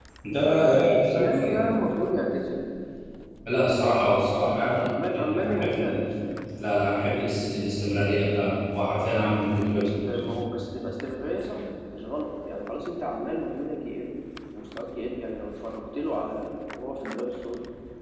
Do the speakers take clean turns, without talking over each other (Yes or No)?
No